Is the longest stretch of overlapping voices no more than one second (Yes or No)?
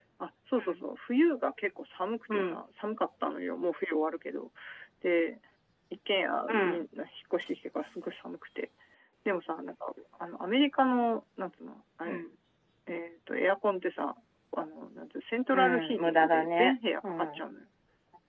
No